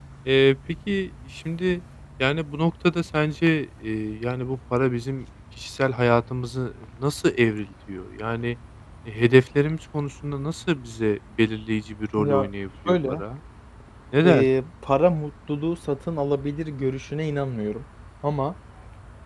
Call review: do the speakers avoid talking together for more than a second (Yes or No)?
Yes